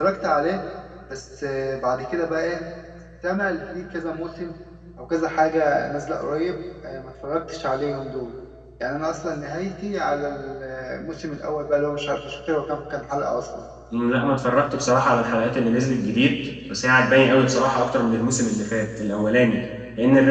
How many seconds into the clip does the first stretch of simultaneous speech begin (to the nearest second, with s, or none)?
none